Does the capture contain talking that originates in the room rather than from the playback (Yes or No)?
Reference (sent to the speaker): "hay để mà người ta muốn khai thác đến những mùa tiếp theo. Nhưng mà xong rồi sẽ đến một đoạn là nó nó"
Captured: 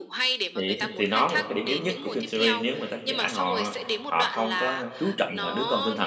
Yes